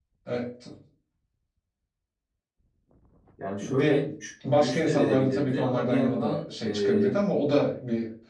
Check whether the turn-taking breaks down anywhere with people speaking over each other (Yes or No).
Yes